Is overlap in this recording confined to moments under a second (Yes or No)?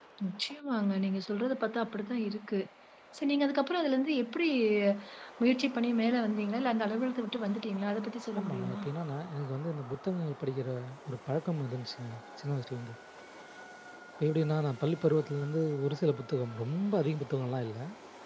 Yes